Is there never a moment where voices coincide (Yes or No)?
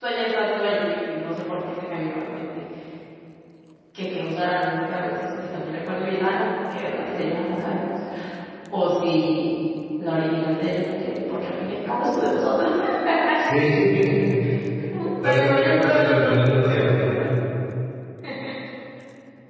No